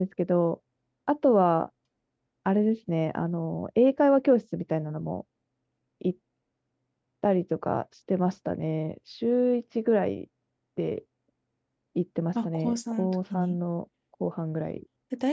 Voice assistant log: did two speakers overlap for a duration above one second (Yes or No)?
Yes